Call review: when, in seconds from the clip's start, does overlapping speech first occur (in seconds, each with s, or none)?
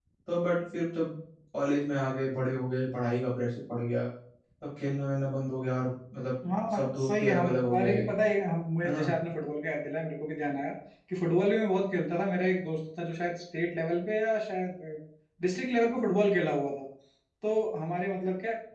6.7 s